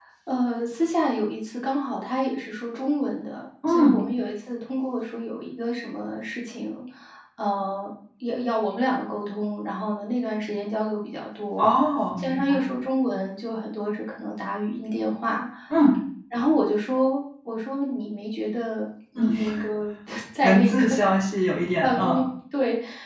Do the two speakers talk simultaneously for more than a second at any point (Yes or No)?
No